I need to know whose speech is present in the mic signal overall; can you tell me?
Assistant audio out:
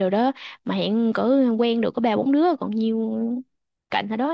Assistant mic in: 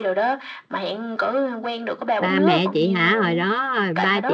both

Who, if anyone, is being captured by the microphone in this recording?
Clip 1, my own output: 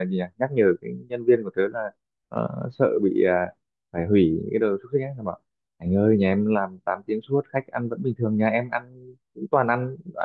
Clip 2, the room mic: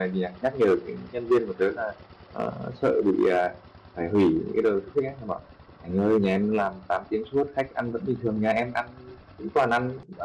echo only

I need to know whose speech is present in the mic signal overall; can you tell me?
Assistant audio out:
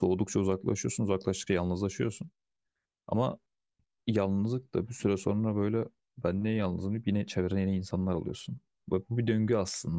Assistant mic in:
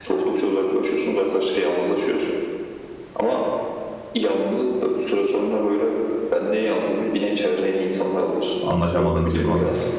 both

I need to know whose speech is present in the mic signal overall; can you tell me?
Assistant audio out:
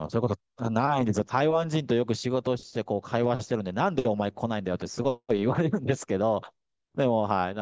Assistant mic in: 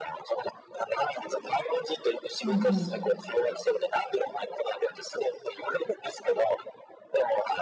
both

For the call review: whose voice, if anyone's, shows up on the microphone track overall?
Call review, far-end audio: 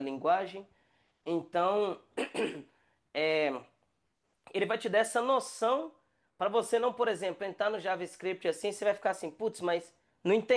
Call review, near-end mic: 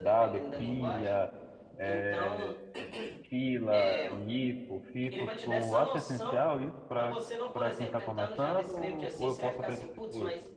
both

